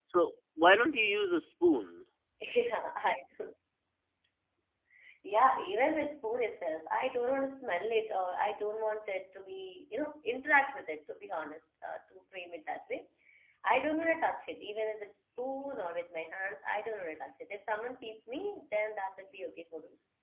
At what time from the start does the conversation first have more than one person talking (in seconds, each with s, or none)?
none